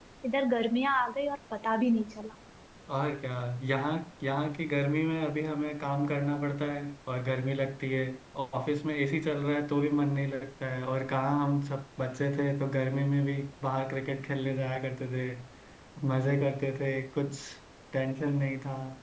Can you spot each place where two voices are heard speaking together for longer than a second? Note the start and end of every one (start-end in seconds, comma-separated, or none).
none